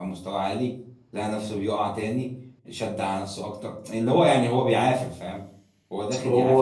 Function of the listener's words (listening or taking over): listening